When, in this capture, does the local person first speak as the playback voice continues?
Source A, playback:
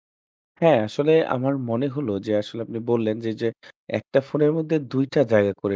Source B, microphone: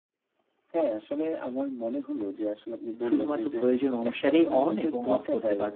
3 s

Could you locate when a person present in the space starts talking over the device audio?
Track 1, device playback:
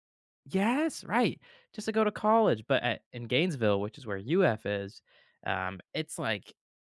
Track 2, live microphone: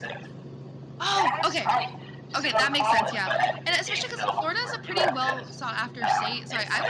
1 s

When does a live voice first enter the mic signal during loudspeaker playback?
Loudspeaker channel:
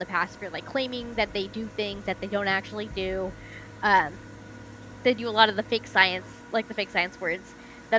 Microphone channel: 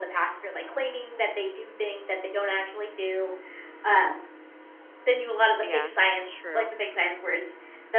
6 s

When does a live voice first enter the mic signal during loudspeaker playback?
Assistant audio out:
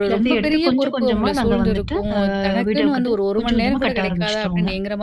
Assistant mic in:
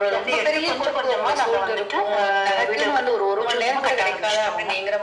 none

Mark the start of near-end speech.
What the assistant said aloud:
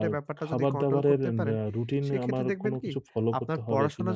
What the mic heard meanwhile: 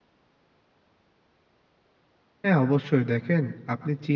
2 s

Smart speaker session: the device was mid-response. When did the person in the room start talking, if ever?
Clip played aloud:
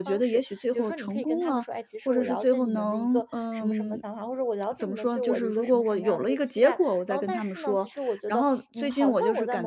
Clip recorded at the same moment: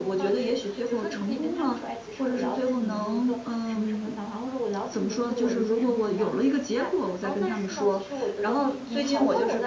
none

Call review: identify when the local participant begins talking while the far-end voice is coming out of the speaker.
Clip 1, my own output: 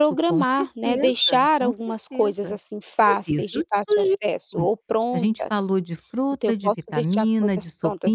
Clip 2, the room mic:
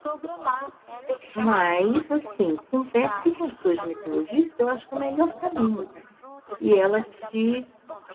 1 s

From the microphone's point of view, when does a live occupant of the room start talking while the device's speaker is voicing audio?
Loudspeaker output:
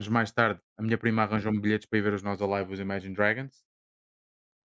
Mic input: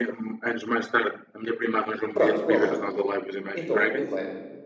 2 s

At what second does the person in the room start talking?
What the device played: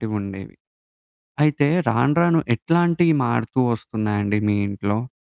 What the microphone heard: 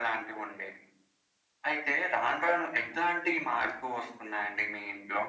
none

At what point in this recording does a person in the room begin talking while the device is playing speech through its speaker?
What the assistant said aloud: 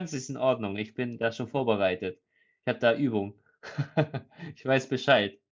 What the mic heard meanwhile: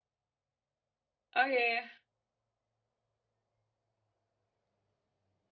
1 s

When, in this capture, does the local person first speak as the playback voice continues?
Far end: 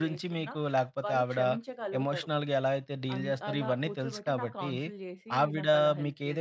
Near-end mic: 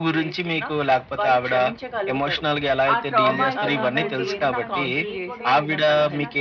3 s

